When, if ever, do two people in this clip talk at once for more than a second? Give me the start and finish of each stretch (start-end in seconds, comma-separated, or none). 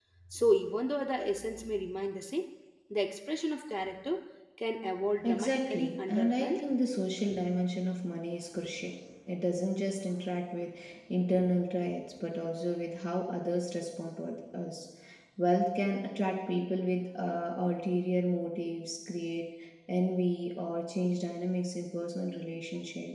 5.2-6.6